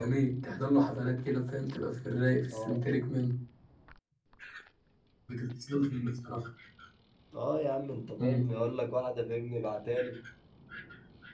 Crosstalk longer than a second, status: none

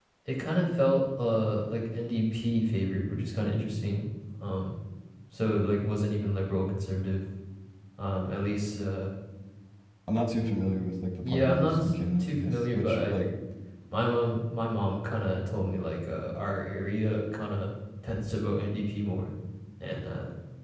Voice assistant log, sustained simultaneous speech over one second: present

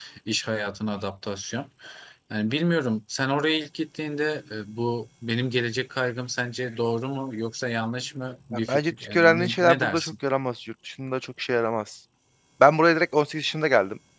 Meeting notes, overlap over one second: present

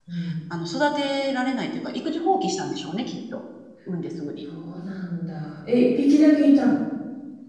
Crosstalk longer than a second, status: none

